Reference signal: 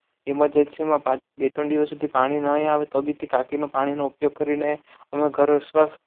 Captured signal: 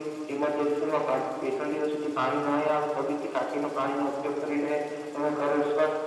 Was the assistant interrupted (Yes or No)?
No